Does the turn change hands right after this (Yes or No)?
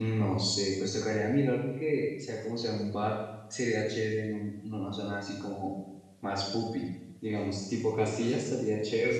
Yes